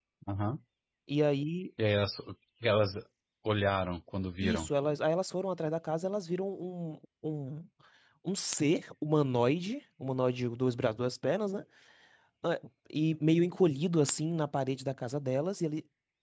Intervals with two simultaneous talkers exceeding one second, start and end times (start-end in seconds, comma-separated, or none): none